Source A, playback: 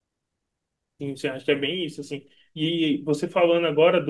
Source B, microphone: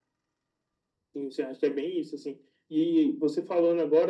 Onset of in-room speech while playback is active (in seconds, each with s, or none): none